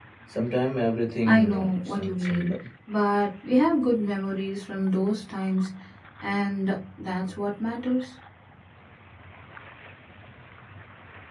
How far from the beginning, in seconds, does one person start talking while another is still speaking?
1.3 s

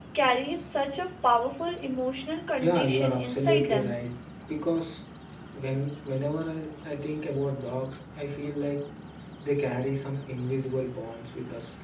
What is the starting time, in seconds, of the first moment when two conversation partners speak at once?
2.6 s

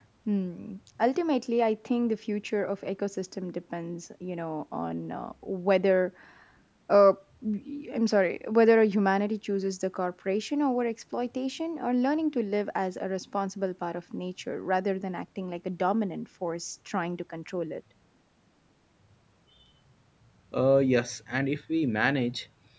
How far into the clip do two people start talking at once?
none

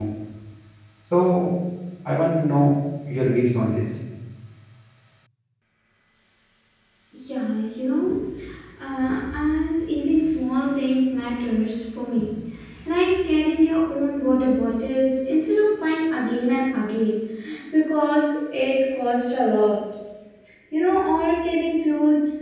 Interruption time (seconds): none

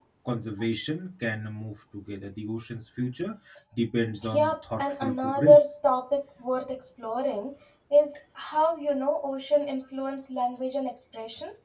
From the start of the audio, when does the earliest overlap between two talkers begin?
4.3 s

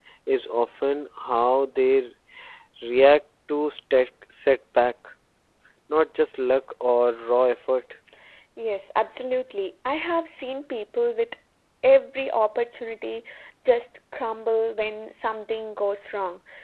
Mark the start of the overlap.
none

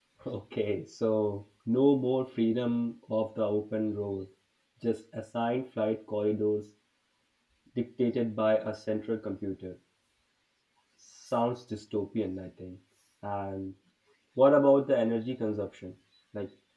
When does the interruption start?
none

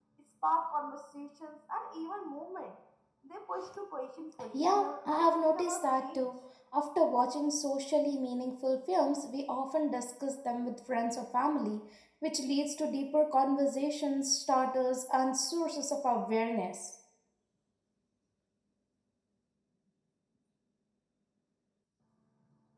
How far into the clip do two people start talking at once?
4.5 s

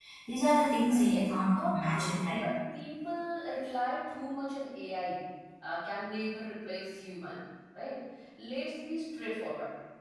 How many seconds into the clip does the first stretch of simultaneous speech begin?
0.9 s

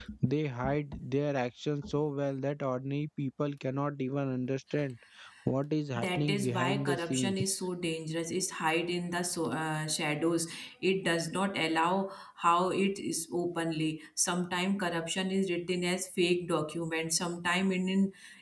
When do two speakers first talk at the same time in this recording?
6.0 s

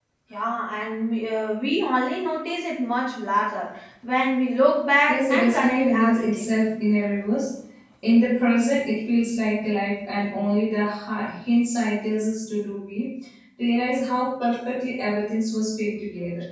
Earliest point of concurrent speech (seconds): 5.1 s

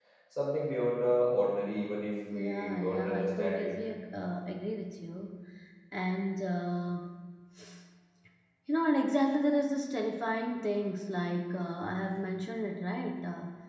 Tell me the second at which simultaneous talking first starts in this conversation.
2.3 s

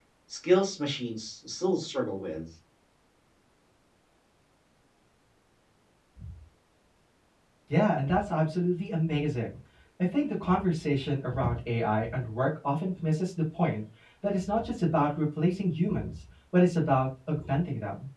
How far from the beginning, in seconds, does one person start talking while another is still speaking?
none

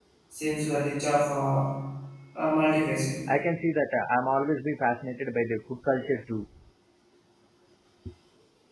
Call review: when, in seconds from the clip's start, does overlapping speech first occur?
none

